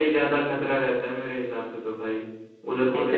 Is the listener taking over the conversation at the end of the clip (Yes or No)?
Yes